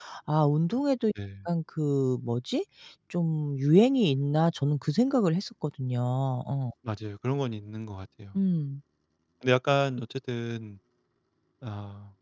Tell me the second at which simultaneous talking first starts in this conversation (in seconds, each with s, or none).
none